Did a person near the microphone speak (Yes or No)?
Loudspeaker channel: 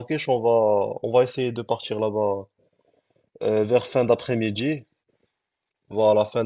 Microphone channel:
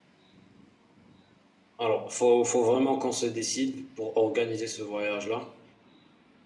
Yes